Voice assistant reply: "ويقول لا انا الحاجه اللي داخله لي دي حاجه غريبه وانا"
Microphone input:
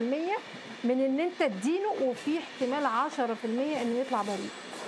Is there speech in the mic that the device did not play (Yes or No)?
Yes